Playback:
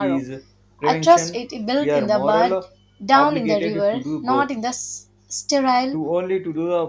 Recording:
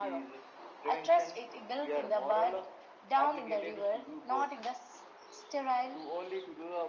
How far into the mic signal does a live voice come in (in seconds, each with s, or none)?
none